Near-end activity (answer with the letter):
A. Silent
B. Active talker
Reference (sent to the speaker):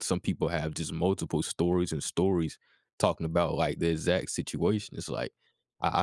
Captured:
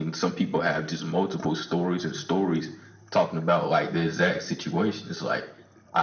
A